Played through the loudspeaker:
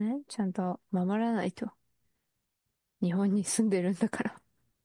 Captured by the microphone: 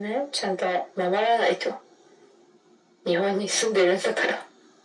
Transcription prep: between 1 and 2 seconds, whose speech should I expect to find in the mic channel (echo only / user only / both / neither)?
echo only